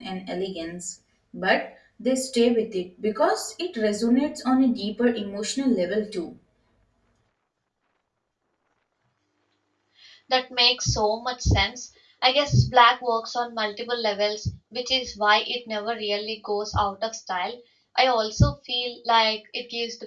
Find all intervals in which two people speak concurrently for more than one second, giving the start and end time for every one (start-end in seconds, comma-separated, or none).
none